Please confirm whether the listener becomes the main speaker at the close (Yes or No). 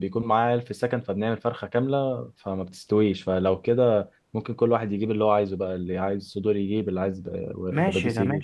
Yes